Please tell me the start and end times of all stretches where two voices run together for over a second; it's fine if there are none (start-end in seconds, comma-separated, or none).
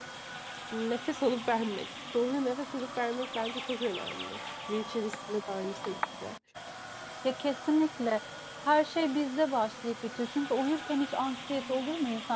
none